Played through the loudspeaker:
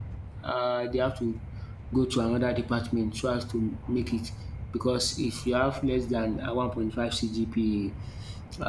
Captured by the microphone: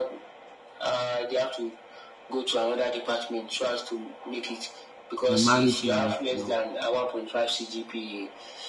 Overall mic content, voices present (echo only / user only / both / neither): both